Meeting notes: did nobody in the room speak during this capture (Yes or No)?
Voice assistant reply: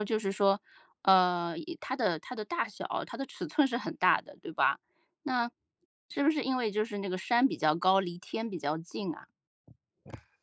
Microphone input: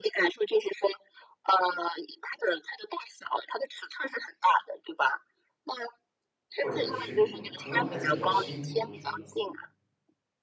No